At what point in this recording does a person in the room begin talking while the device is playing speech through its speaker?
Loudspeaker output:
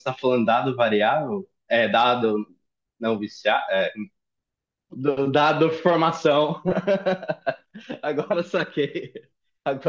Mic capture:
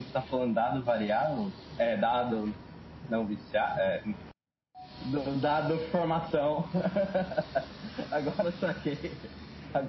none

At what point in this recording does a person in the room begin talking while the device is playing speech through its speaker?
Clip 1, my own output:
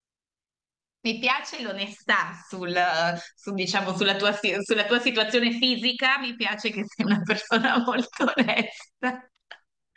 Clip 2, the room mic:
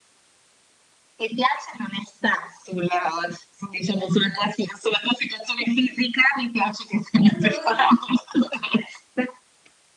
7.2 s

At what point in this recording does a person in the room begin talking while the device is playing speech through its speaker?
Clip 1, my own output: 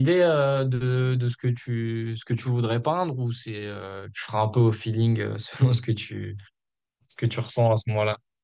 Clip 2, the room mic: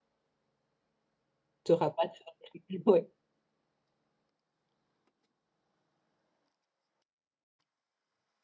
1.6 s

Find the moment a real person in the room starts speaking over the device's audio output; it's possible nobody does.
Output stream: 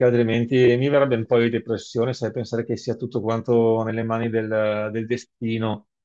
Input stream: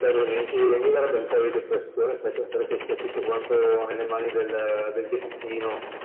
none

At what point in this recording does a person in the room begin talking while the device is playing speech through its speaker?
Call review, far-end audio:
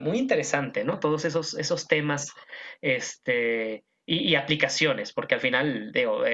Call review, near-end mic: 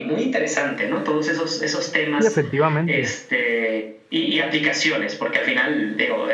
2.1 s

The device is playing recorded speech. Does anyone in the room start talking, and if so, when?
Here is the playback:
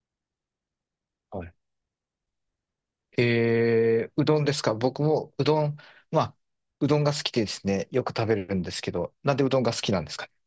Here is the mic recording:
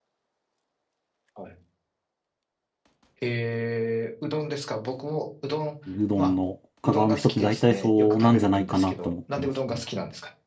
5.9 s

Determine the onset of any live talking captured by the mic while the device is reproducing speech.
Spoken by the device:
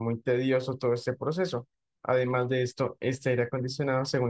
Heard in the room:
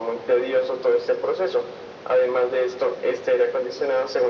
none

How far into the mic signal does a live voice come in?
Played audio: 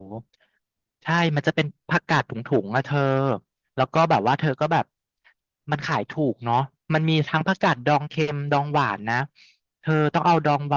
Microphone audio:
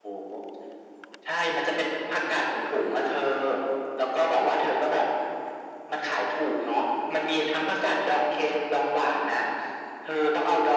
none

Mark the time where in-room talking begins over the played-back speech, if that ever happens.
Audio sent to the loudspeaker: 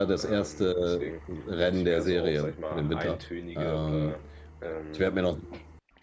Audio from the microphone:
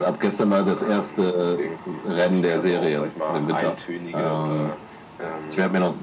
none

